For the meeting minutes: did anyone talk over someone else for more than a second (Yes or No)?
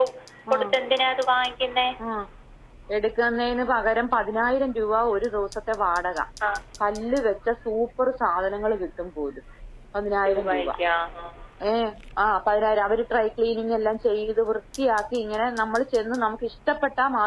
No